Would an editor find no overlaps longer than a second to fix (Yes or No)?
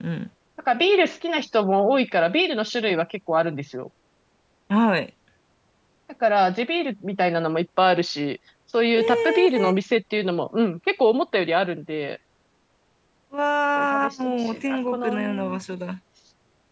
No